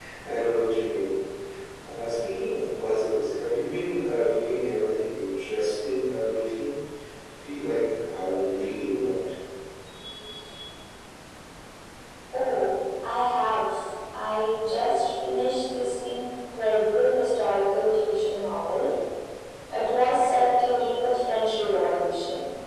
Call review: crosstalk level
none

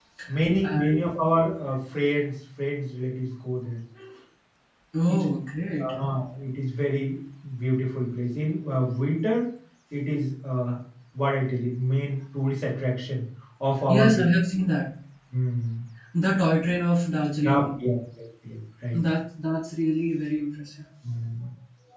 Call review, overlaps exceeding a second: none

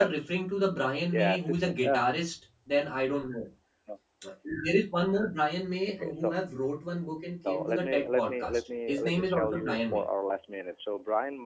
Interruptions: present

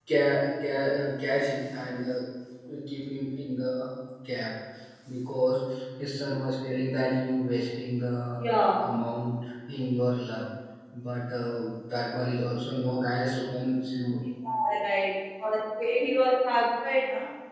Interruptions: none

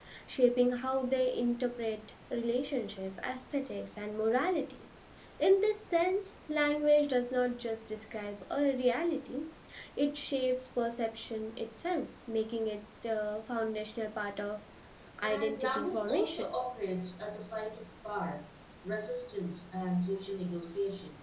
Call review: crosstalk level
present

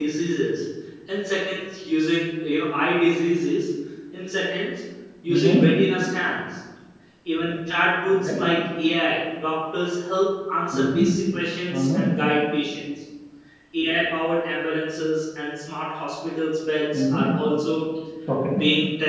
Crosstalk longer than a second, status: none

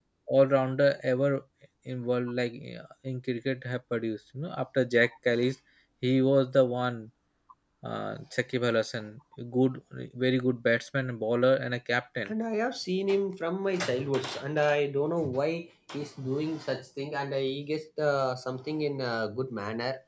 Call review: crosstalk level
none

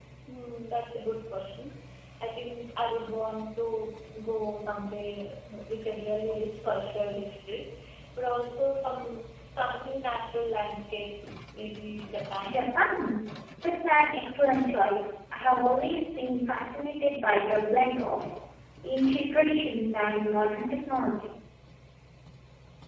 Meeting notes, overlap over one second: none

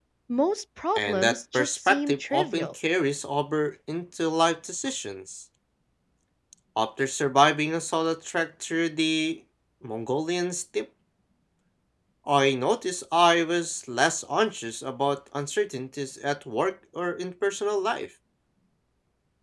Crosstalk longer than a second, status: present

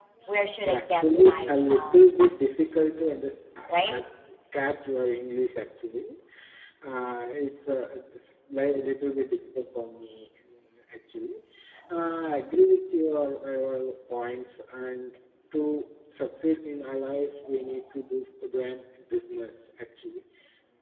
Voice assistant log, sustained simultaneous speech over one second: present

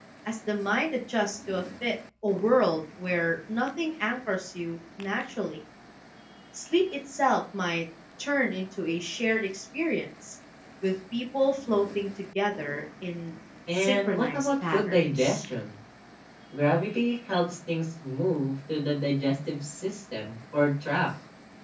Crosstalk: present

